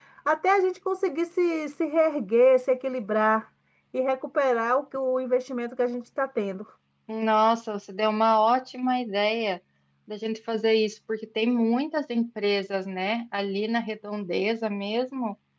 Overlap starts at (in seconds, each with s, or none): none